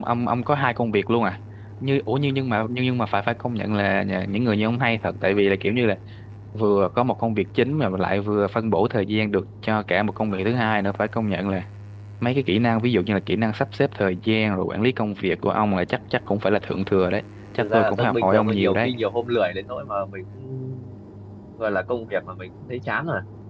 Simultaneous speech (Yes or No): Yes